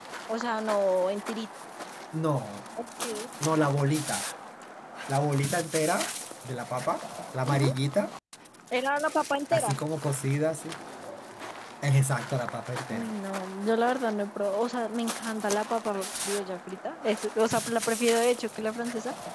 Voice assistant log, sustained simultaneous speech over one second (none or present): none